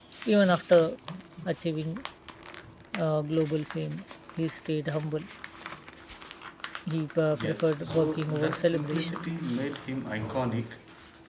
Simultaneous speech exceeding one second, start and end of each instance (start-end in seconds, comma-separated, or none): 7.3-9.2